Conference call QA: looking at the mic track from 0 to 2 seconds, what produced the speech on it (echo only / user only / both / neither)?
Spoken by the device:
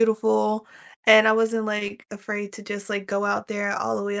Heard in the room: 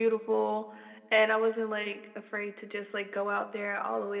echo only